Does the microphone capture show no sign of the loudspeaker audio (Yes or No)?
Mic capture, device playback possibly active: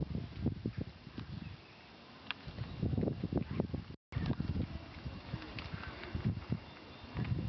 Yes